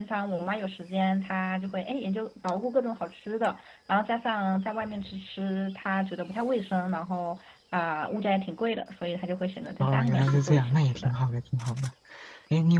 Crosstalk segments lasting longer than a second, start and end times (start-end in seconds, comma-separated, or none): 9.8-11.1